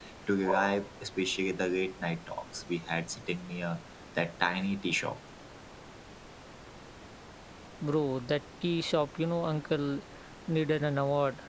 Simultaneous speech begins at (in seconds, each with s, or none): none